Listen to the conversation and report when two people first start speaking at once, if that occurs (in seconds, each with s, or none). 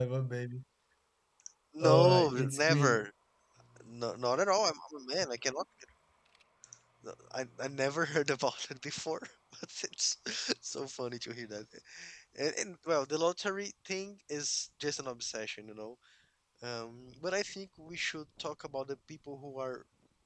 1.8 s